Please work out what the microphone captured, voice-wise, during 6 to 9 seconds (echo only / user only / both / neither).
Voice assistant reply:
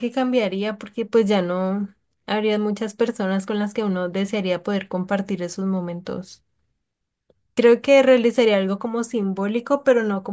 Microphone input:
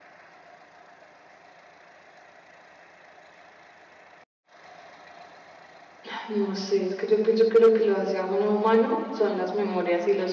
user only